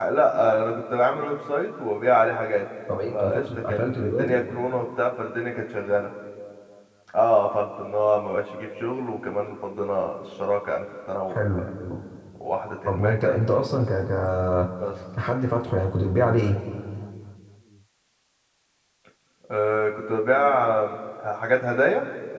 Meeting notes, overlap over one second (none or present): present